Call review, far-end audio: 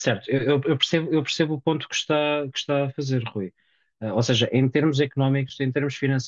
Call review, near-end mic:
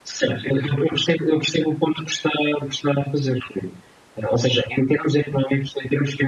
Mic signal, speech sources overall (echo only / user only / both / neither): echo only